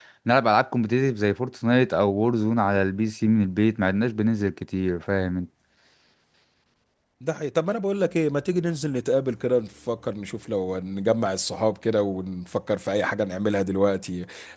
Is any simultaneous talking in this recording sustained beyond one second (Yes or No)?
No